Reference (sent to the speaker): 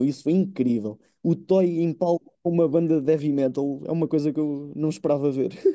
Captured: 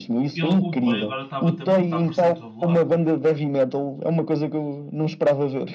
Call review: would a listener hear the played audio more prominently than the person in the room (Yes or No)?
Yes